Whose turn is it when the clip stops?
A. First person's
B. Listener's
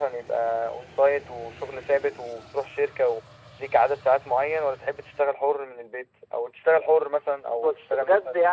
B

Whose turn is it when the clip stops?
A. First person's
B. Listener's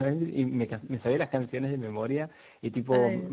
A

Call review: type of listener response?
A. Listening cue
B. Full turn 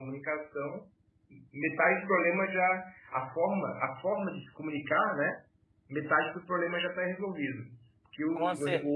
A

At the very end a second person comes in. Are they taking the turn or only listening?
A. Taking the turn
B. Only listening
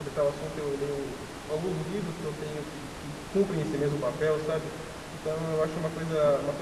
B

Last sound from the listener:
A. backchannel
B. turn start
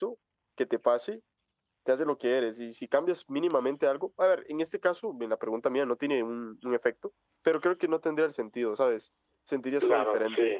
B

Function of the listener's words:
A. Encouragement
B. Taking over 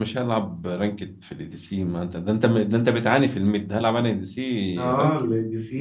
B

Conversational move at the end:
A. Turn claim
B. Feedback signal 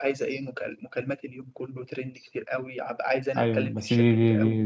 A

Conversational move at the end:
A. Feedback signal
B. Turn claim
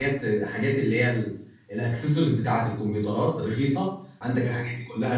A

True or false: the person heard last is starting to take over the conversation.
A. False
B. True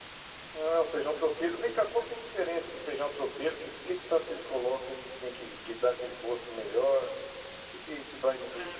B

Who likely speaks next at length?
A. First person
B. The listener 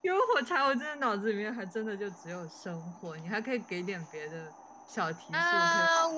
B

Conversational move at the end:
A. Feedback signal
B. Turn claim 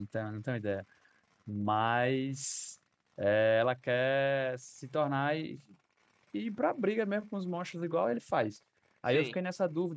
A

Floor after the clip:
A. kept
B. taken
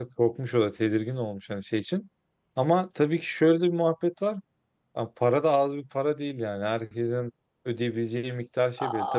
B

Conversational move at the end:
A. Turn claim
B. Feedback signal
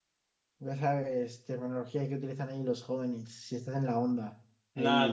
A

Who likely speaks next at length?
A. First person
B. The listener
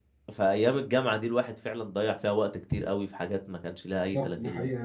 B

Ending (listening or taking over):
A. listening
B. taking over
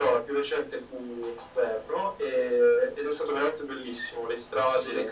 A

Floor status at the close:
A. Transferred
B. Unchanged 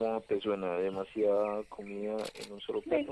A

